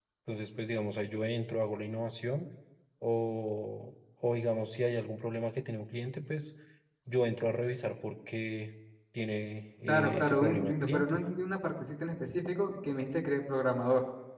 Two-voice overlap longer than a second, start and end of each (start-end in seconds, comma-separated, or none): 9.9-11.2